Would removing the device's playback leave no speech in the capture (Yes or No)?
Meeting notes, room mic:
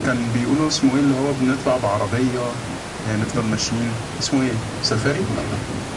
Yes